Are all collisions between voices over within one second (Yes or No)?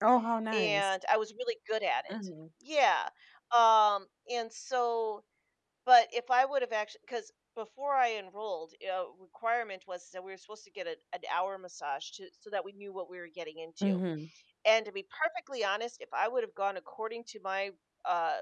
Yes